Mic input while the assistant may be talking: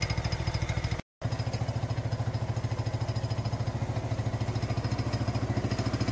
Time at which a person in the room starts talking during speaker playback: none

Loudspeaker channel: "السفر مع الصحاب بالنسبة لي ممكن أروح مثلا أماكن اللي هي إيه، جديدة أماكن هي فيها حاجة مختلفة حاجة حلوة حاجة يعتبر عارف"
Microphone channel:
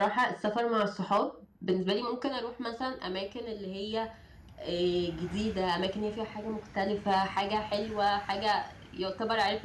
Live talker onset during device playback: none

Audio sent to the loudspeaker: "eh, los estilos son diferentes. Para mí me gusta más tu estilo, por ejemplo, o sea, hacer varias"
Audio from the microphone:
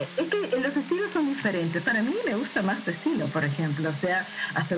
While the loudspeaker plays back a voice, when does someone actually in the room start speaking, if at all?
none

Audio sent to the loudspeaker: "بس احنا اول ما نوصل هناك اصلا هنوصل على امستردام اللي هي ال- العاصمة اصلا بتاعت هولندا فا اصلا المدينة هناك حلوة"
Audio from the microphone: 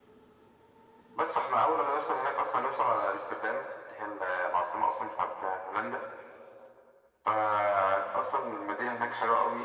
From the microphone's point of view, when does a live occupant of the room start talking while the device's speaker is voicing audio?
none

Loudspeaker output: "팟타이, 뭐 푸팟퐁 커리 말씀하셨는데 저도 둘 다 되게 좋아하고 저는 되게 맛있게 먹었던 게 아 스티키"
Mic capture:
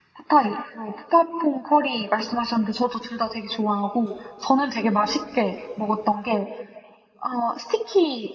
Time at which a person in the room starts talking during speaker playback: none

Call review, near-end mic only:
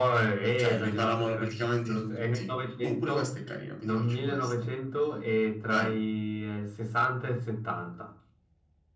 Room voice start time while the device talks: none

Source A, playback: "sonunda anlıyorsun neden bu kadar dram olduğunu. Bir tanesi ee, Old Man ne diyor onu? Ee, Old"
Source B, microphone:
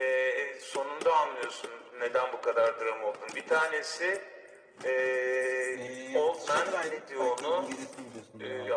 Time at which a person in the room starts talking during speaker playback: 5.7 s

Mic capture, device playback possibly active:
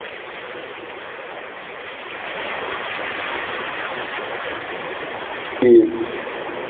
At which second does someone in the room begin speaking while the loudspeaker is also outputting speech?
5.6 s

